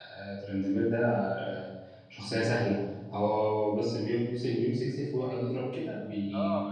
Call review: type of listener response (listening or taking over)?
taking over